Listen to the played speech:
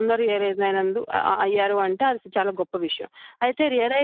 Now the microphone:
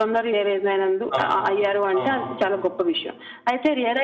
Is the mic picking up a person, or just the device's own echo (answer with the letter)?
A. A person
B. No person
A